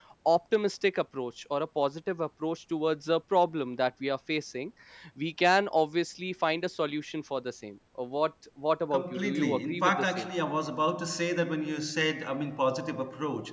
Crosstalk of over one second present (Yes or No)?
Yes